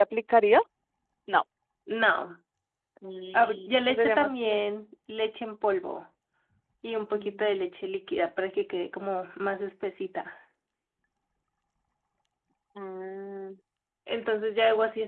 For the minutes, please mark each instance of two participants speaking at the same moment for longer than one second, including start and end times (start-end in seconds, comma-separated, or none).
3.3-4.6